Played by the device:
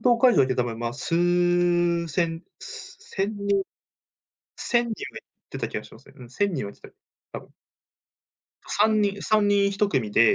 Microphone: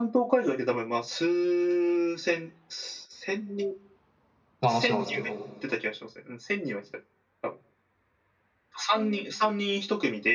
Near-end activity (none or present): present